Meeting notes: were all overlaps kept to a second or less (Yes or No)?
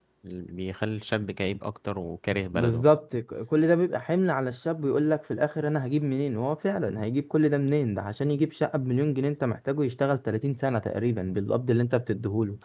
Yes